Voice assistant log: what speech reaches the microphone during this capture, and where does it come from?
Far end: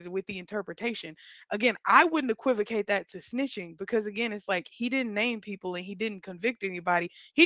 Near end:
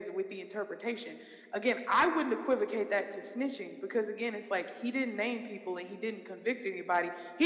echo only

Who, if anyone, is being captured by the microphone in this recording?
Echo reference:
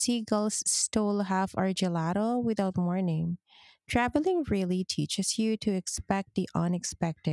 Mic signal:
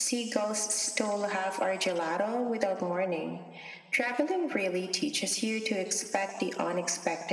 echo only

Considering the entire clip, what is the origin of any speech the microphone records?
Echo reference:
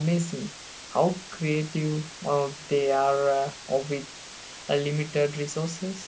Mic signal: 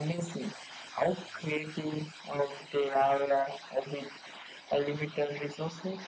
echo only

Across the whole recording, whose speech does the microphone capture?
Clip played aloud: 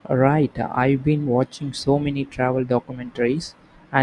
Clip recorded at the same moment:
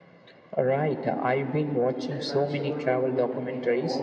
both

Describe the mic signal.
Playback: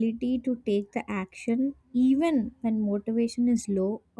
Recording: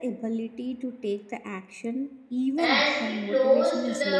both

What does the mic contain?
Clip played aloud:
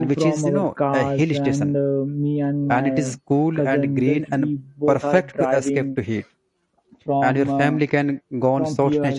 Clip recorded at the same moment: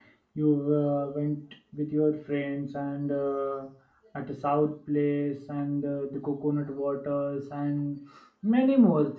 user only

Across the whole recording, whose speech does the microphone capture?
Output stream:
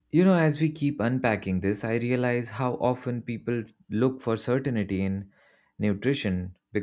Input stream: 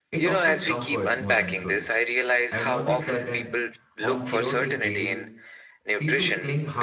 both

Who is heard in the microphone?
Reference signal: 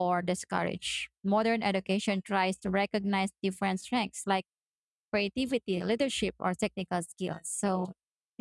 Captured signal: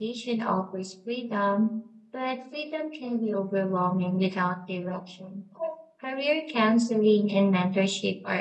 user only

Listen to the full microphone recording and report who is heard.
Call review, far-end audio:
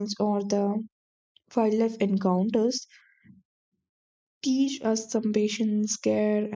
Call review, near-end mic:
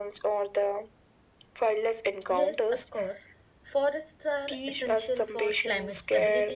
both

